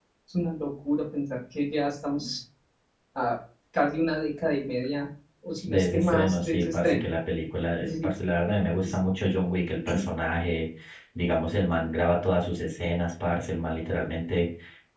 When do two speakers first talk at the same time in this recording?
5.7 s

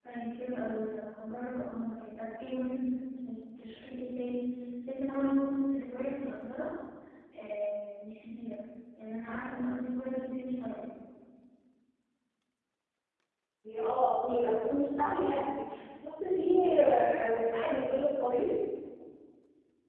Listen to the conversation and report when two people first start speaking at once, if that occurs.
none

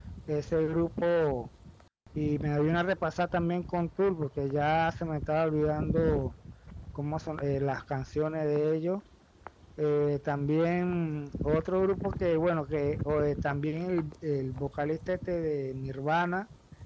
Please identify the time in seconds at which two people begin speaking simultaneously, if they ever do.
none

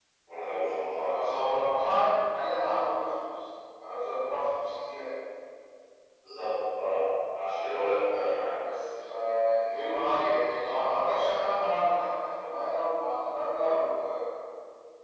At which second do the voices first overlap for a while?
none

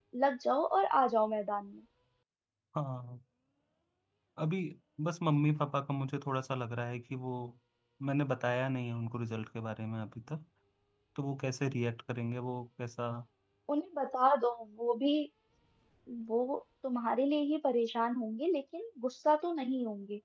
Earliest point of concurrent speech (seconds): none

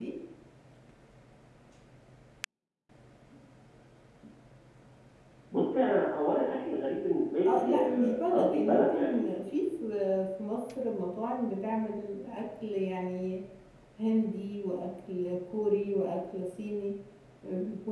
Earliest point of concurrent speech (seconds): 7.4 s

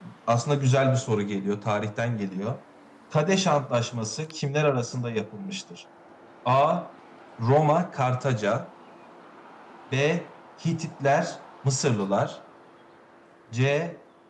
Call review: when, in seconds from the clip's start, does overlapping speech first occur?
none

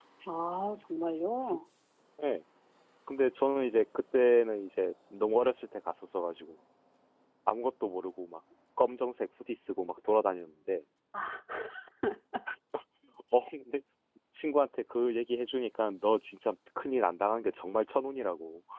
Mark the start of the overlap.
none

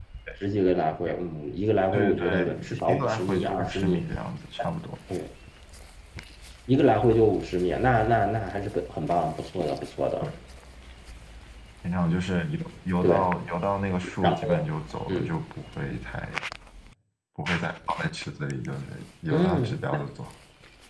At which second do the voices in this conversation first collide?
1.9 s

